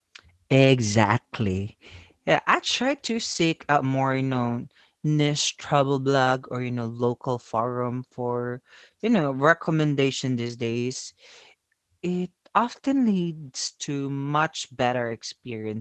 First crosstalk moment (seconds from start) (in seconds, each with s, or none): none